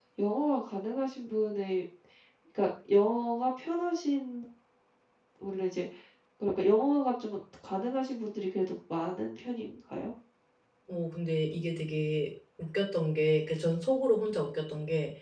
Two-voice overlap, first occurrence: none

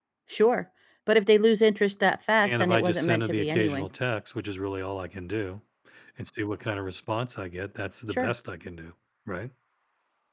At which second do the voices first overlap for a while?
2.4 s

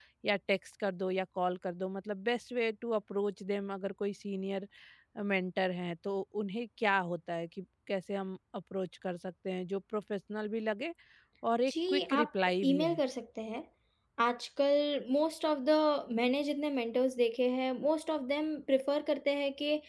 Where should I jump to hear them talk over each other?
11.7 s

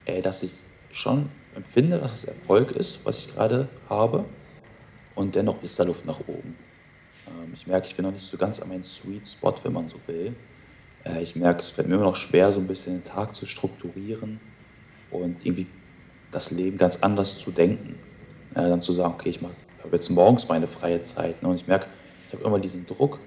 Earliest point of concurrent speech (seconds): none

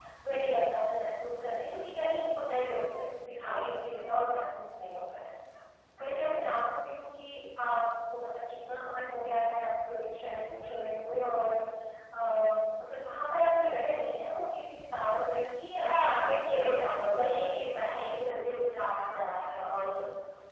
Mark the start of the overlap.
15.8 s

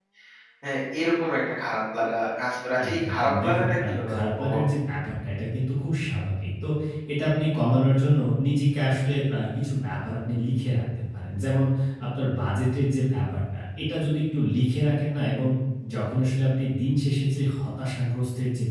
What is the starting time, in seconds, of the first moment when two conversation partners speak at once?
2.8 s

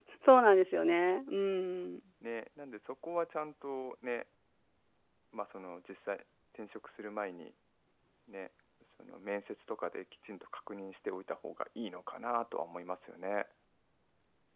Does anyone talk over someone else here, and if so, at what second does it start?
none

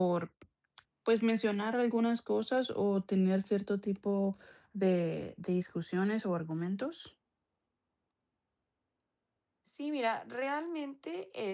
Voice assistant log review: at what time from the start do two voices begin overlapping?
none

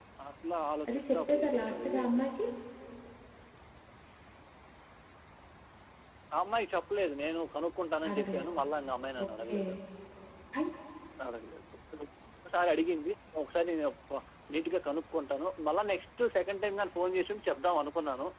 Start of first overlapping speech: 0.9 s

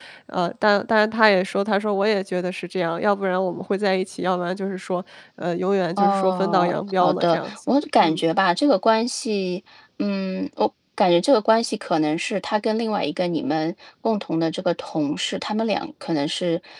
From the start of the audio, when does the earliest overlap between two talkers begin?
6.0 s

